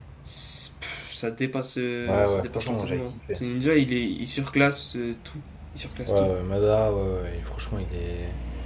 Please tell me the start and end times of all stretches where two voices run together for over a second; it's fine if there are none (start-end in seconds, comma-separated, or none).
2.0-3.4